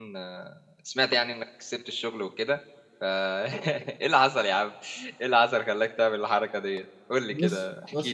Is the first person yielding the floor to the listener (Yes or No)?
Yes